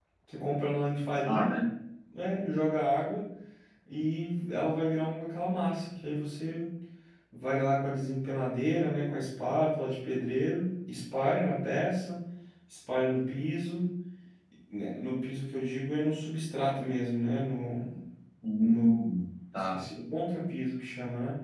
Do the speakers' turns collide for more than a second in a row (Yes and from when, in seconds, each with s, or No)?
No